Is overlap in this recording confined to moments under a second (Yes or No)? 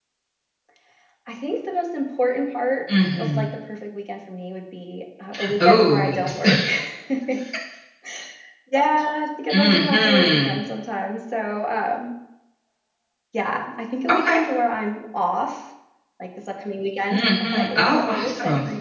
No